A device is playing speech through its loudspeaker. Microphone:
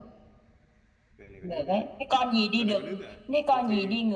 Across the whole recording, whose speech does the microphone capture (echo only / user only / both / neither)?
both